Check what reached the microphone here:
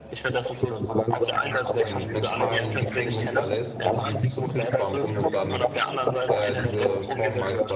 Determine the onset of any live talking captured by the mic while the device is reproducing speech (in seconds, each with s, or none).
1.8 s